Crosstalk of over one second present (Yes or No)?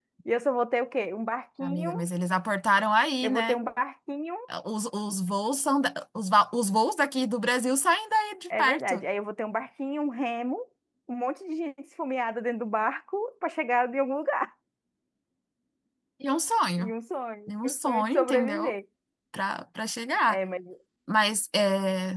Yes